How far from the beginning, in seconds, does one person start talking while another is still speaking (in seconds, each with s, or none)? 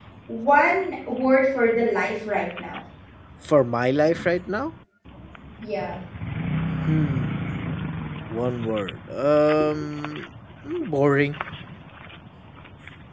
none